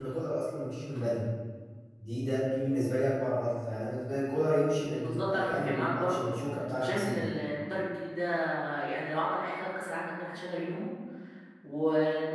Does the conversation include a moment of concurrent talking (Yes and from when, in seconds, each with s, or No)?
Yes, from 5.0 s